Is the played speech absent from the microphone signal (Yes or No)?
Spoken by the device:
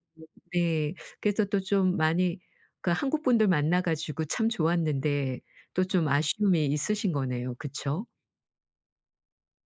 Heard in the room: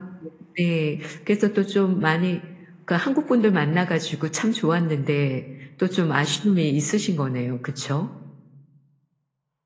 No